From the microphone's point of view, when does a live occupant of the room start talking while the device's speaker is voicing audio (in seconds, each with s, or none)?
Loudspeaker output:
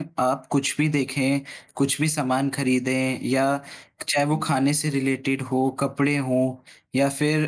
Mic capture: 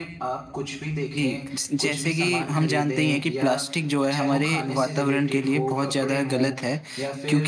1.1 s